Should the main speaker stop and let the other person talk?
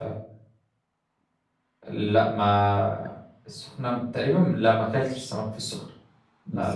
Yes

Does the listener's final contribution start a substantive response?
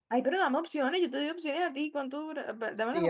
Yes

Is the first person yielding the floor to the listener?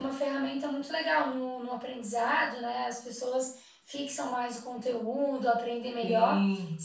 No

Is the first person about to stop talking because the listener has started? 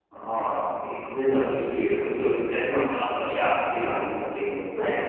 No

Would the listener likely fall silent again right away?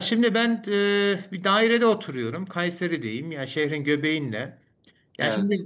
Yes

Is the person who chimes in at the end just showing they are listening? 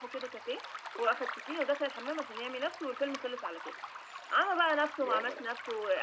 Yes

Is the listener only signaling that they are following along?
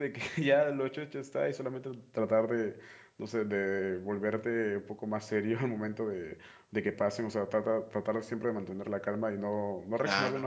Yes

